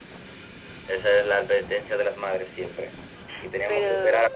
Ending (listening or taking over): listening